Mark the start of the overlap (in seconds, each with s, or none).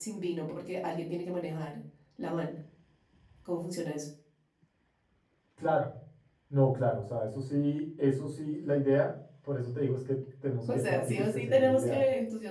10.7 s